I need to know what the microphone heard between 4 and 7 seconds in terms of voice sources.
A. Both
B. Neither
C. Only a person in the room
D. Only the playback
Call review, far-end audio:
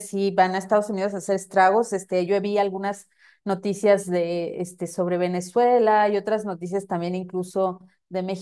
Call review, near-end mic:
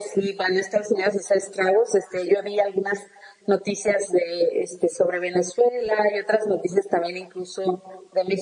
D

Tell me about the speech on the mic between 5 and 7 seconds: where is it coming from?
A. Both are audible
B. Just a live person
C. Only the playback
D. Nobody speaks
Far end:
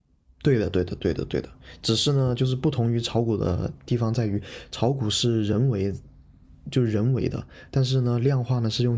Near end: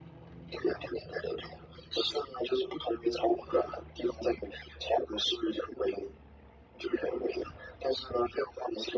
C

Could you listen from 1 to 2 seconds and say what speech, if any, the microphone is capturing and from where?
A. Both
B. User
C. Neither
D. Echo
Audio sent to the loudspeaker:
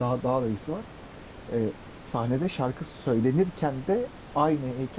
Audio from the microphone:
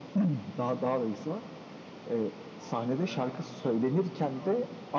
D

